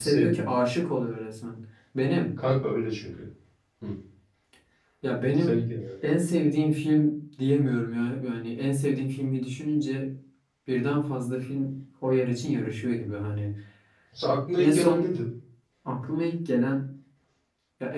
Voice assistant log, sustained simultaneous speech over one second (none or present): none